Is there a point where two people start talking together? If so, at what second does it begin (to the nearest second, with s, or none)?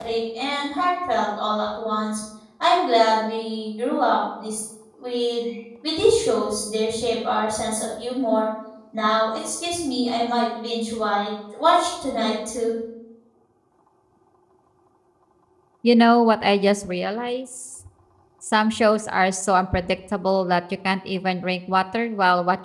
none